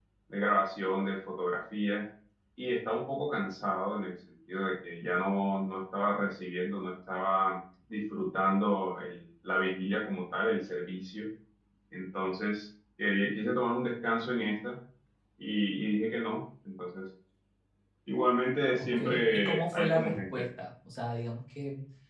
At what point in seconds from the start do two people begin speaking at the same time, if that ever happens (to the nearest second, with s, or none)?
19 s